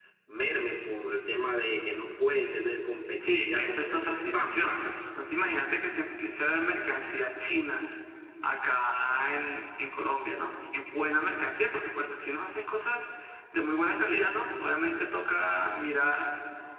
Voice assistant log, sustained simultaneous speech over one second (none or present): present